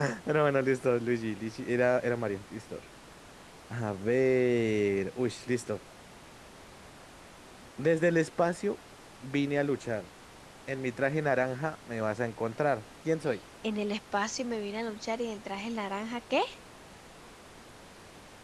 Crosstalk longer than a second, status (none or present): none